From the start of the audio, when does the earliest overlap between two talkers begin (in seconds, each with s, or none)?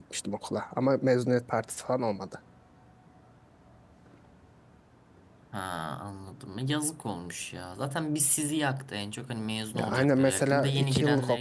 9.7 s